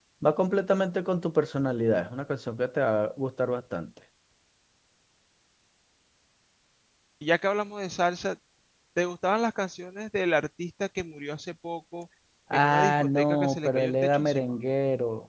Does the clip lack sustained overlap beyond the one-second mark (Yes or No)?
No